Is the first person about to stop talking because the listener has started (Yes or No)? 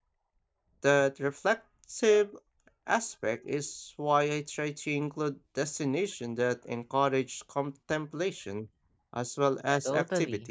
Yes